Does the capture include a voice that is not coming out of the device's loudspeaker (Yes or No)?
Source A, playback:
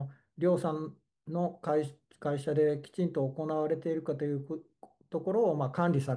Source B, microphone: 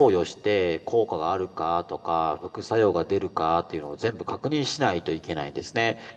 Yes